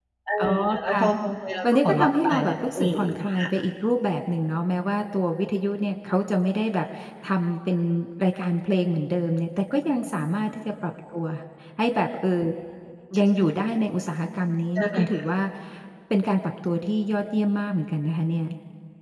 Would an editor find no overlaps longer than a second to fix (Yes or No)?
No